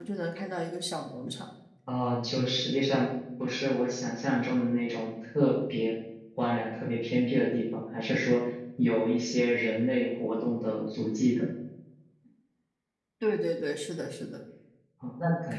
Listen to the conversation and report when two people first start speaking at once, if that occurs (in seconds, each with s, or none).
none